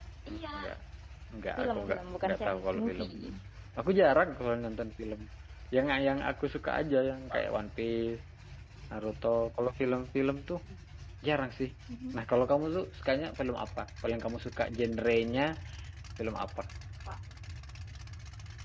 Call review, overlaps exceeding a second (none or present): present